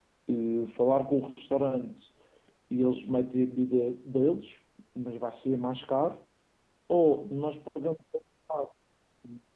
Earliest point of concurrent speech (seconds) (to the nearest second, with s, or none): none